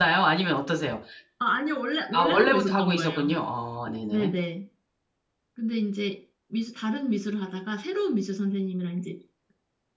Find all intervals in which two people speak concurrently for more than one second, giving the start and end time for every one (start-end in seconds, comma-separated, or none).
2.1-3.3